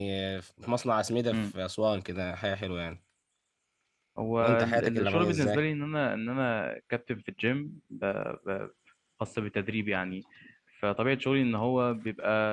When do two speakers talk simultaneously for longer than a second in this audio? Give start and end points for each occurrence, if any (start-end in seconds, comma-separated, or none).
4.4-5.6